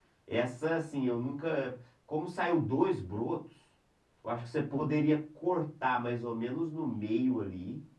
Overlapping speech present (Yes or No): No